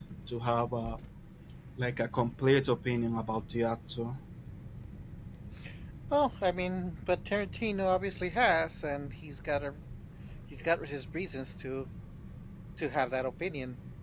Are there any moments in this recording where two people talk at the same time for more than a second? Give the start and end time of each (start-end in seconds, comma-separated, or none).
none